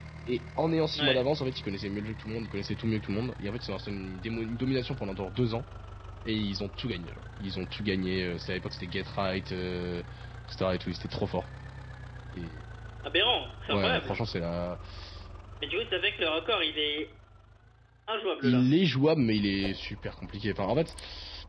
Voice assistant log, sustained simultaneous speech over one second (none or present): none